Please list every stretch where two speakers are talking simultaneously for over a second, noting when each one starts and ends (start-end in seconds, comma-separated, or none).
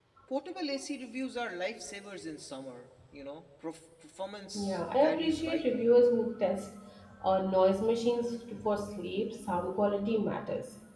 4.5-5.9